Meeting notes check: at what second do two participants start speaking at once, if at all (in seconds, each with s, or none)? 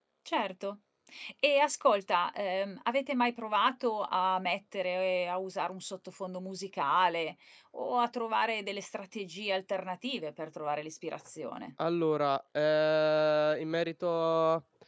none